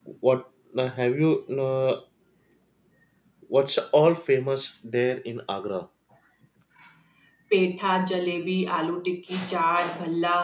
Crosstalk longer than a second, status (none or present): none